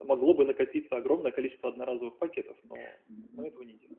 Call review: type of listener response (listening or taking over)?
taking over